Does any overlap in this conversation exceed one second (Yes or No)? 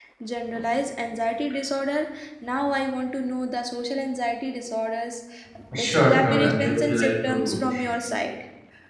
Yes